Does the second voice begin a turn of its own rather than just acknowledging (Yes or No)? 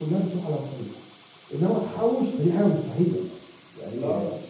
No